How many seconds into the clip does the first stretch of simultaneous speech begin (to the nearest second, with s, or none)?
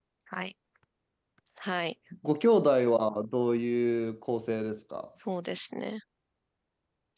none